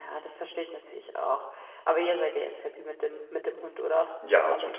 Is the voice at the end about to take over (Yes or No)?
Yes